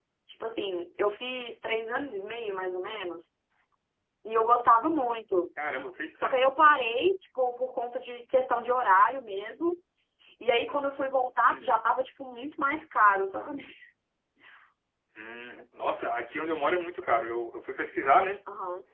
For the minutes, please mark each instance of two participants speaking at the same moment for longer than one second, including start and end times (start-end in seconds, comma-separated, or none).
none